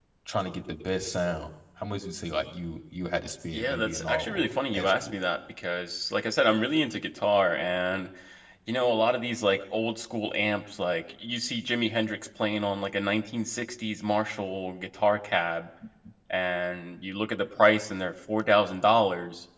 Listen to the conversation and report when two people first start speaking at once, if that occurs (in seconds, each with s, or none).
3.5 s